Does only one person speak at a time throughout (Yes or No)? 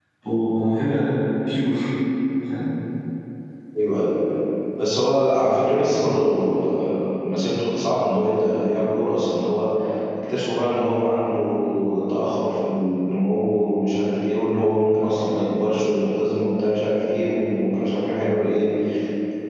Yes